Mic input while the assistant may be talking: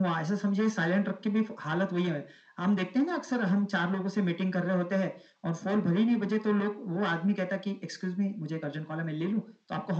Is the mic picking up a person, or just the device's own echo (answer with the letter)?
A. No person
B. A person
A